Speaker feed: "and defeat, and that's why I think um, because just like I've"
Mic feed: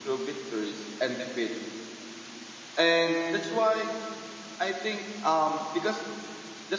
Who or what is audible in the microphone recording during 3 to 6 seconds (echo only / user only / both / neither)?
echo only